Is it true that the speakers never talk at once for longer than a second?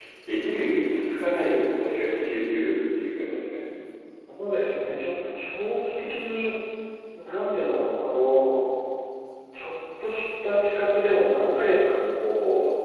Yes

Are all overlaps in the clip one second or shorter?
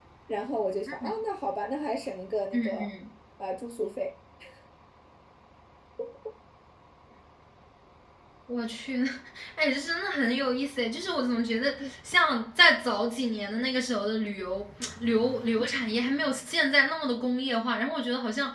Yes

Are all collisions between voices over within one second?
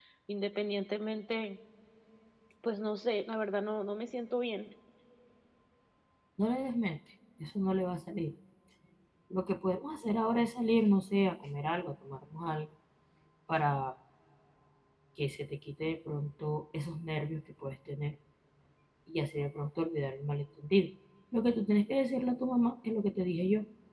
Yes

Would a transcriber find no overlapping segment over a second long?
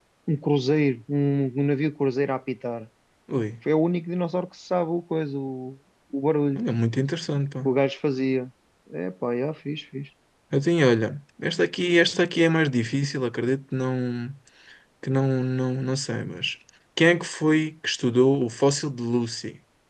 Yes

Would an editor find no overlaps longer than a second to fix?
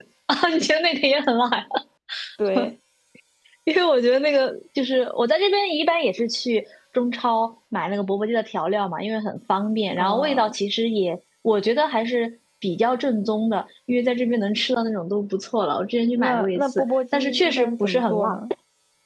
No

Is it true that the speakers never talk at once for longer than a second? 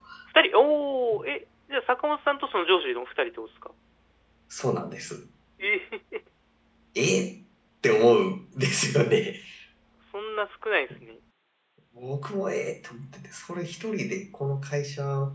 Yes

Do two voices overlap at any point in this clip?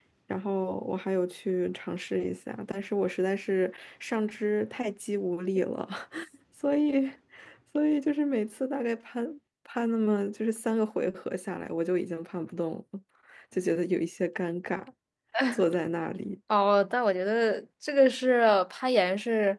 No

